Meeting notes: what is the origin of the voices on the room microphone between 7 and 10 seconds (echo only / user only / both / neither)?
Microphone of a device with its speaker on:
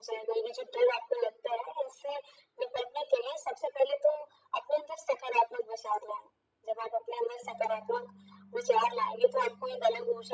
echo only